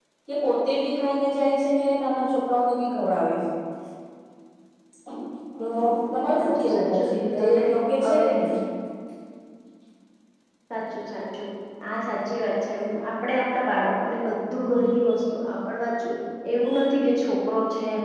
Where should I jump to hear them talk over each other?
6.4 s

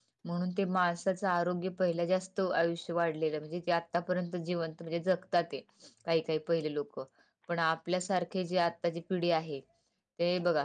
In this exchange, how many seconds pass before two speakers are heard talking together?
none

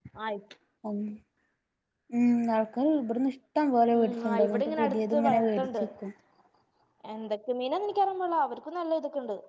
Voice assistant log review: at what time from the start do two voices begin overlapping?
4.0 s

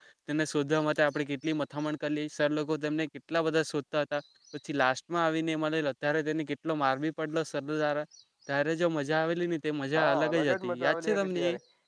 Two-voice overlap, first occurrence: 9.9 s

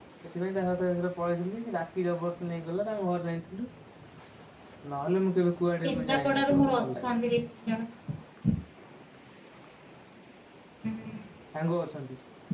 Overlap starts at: 5.8 s

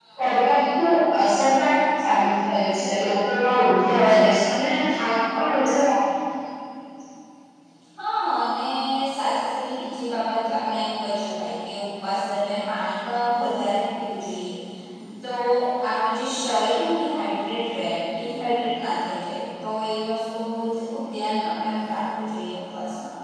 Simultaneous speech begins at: none

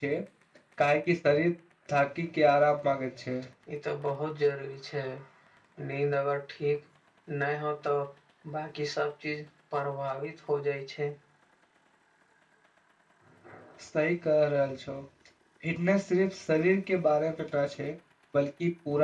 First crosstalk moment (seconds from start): none

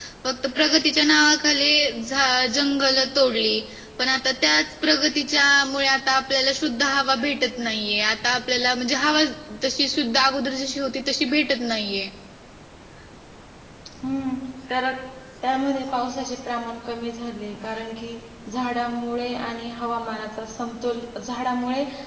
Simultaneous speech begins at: none

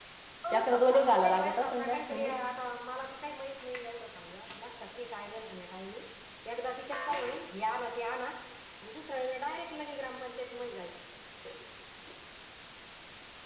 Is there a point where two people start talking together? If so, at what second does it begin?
0.5 s

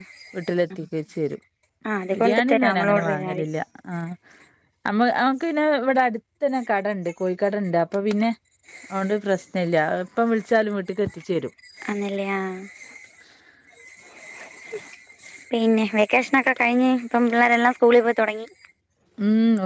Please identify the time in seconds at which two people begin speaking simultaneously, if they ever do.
2.1 s

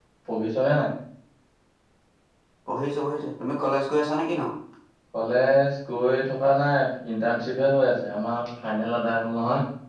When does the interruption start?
none

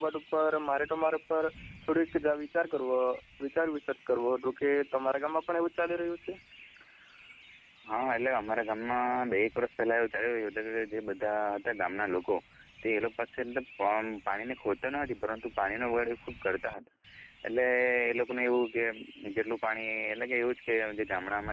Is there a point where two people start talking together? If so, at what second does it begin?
none

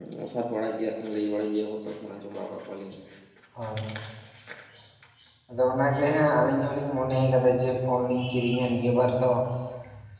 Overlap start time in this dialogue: none

